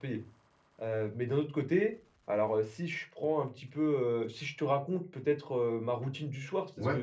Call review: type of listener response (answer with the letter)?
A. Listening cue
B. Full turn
A